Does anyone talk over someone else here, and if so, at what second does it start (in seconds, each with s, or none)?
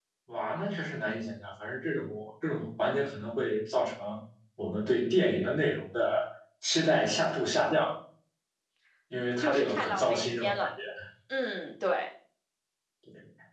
9.4 s